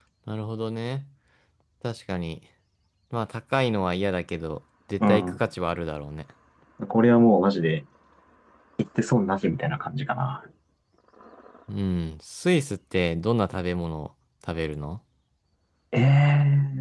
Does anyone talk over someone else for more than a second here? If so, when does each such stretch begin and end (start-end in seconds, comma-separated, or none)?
none